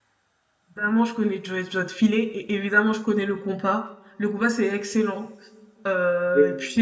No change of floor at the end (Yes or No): Yes